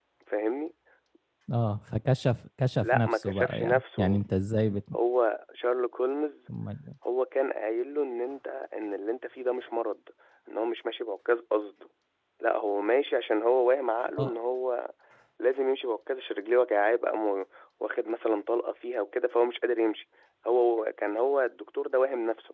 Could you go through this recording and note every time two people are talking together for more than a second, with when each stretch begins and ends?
2.8-4.2

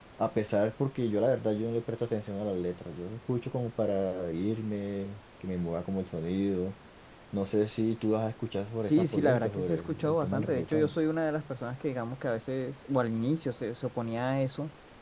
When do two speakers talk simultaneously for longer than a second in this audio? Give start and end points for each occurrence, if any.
8.8-10.9

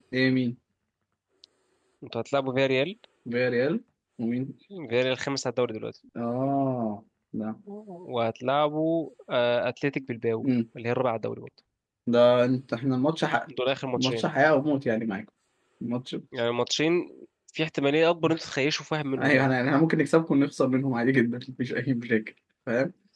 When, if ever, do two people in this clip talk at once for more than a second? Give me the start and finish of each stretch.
none

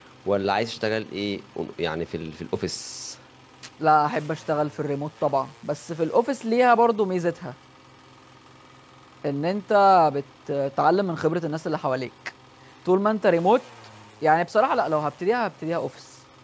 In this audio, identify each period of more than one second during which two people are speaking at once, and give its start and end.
none

